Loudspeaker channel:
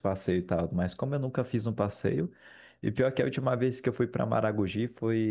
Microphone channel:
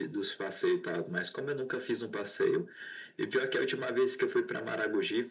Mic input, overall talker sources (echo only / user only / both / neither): echo only